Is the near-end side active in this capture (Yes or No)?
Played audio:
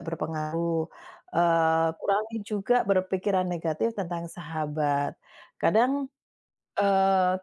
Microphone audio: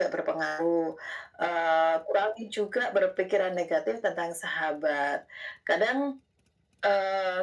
No